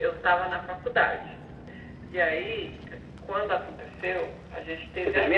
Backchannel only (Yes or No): No